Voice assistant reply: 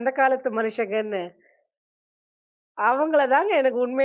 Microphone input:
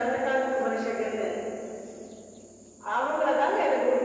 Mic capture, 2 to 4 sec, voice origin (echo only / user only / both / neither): echo only